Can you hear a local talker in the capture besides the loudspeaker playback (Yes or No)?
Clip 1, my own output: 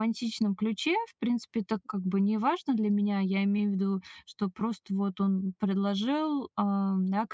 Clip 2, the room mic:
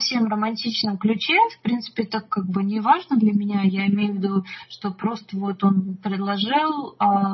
Yes